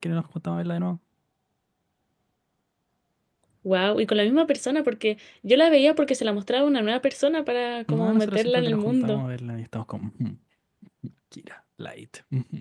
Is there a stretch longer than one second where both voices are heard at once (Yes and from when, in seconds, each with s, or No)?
Yes, from 7.9 s